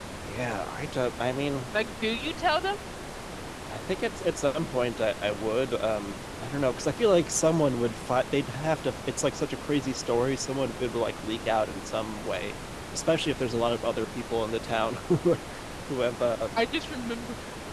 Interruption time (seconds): none

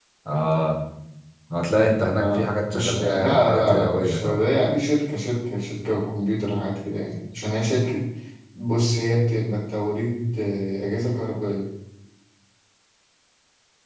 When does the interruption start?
2.2 s

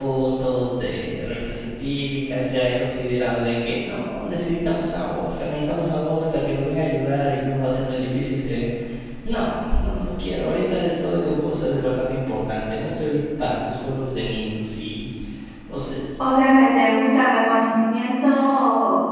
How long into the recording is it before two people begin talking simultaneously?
none

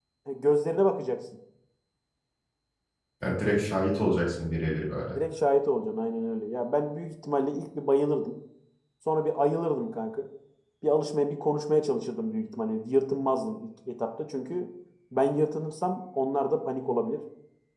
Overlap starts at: none

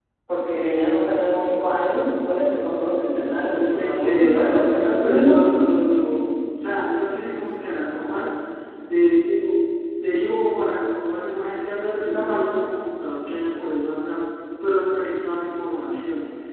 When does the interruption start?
3.5 s

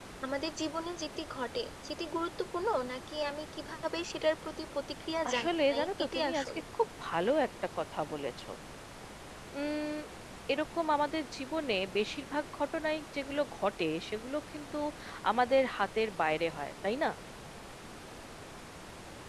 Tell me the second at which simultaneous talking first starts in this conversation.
5.2 s

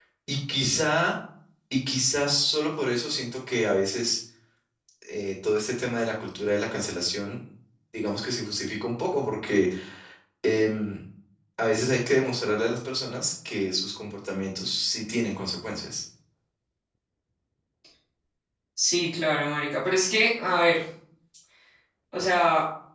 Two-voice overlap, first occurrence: none

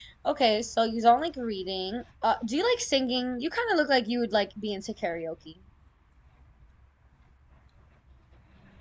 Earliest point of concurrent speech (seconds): none

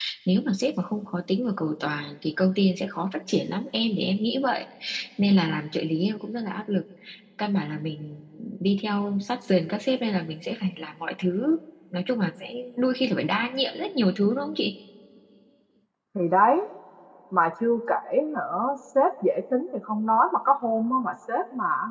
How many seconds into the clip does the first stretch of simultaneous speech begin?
none

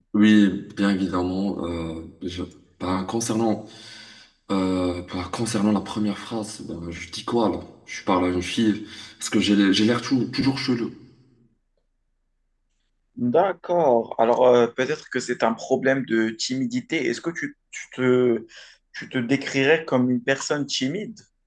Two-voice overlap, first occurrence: none

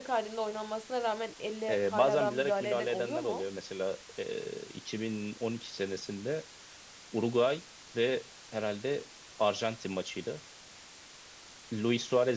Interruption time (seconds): 1.7 s

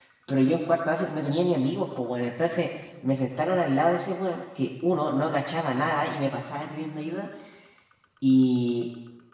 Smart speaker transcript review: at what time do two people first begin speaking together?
none

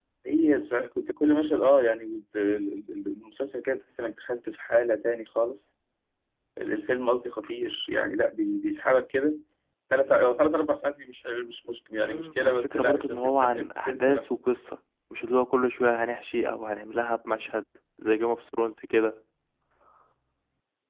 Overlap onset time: 12.0 s

